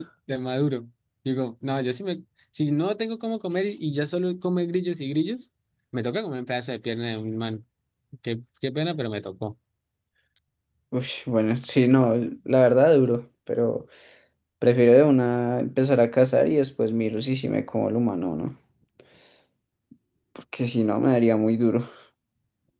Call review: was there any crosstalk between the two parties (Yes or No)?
No